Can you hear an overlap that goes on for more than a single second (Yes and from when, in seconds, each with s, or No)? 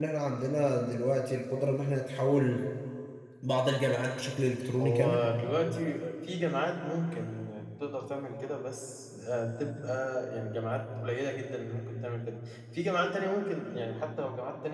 No